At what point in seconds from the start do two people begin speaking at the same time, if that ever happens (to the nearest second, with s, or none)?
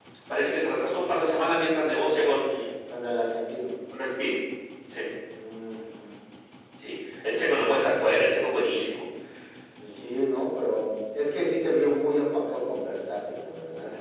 none